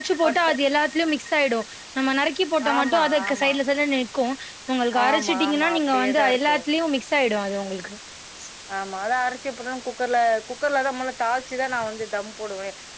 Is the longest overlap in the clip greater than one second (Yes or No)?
Yes